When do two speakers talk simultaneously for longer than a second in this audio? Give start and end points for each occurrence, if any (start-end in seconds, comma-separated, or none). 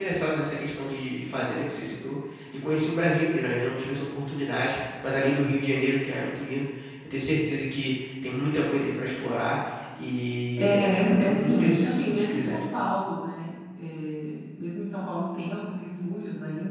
10.6-12.6